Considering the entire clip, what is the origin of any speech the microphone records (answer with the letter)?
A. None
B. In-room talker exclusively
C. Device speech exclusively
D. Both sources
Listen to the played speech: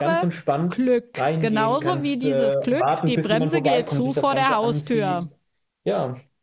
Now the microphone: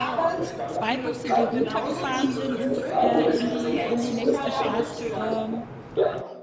D